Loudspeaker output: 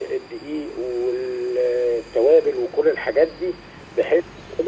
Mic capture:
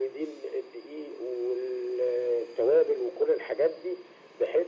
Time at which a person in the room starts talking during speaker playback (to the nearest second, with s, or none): none